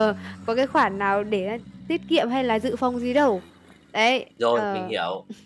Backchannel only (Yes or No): No